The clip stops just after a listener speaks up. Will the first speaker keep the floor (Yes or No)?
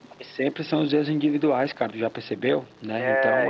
No